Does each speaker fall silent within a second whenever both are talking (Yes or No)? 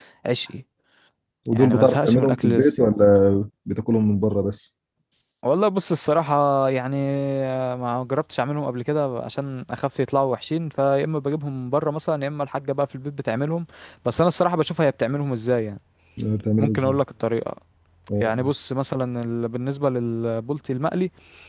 No